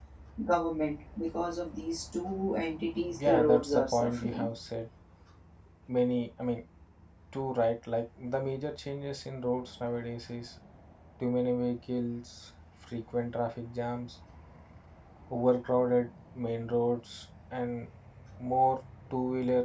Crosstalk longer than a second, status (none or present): present